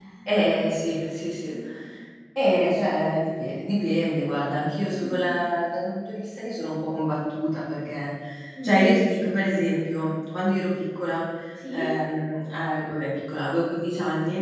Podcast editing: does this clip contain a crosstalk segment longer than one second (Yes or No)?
No